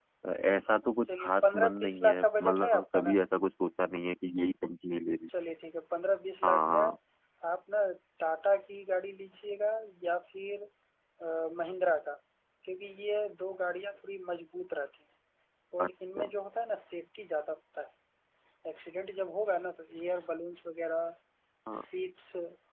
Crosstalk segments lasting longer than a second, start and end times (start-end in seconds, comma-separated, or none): 1.2-3.2